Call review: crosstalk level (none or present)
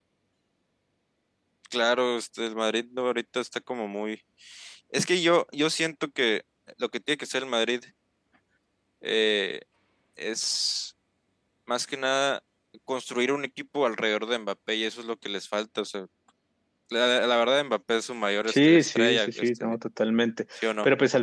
present